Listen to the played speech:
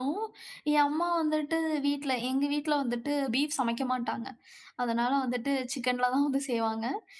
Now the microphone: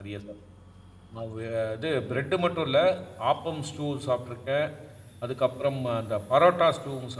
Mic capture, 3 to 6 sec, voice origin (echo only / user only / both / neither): user only